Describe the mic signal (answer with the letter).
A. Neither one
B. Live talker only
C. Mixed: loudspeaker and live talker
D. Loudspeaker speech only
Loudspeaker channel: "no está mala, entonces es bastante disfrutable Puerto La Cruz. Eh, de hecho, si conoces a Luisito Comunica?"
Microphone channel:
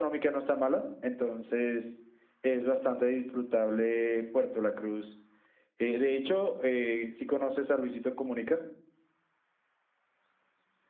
D